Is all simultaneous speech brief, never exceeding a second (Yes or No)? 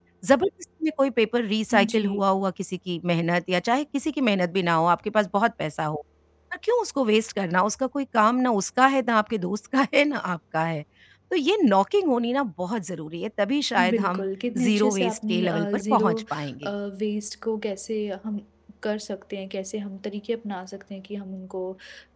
No